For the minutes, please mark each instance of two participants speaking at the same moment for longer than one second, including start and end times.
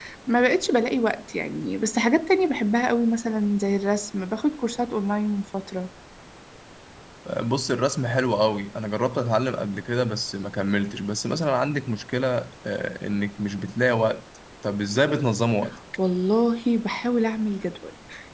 none

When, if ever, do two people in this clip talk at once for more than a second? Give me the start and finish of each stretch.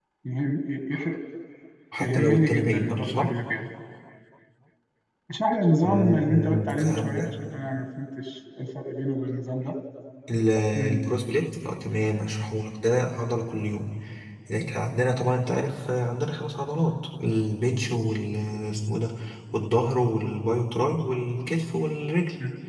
2.0-3.3, 5.8-7.3

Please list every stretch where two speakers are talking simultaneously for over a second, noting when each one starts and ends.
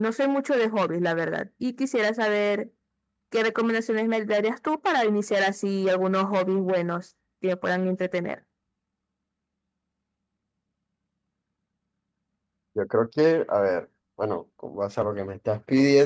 none

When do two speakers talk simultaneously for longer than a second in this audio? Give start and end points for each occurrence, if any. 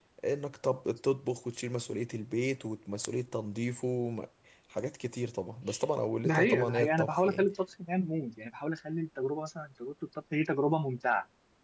6.2-7.5

